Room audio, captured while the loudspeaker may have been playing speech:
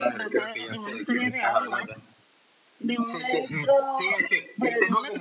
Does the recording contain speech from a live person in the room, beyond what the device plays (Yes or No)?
No